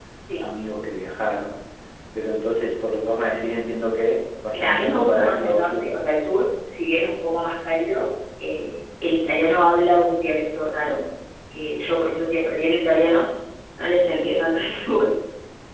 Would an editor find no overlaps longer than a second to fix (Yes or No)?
No